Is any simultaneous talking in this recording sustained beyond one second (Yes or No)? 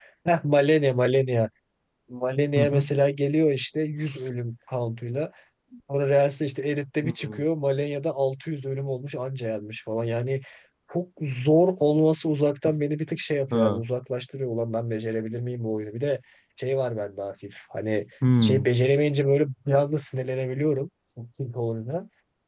No